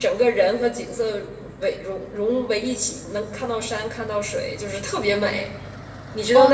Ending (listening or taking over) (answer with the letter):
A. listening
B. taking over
B